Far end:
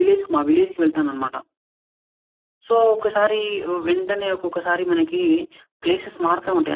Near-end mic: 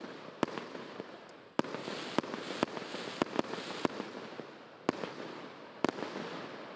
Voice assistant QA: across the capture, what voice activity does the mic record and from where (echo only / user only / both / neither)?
neither